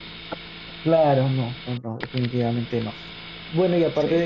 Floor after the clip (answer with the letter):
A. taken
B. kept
B